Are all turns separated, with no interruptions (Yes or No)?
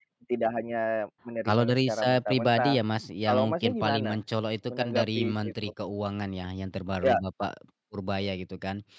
No